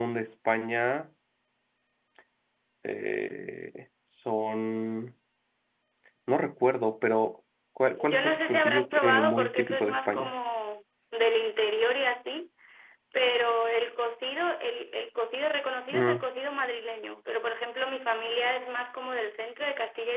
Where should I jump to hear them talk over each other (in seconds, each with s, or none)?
7.9 s